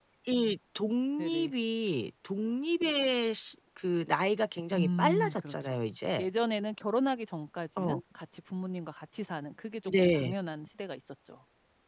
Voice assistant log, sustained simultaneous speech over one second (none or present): present